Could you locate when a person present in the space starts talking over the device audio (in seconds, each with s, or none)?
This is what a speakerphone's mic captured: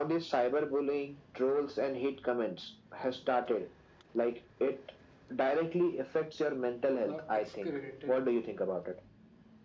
7.0 s